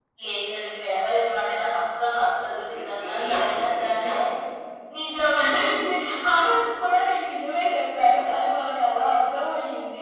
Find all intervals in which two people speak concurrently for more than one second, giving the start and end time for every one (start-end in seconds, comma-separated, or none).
2.7-4.1